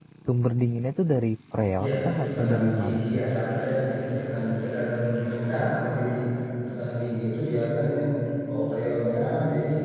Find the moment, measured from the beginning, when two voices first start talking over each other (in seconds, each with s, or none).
1.8 s